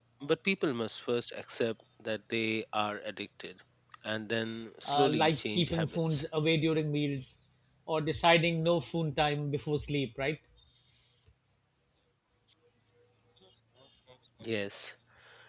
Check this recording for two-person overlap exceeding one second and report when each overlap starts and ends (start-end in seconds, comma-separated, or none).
4.8-6.2